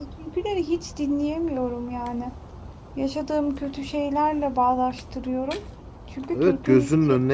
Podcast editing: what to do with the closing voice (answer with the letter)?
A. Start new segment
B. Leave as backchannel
A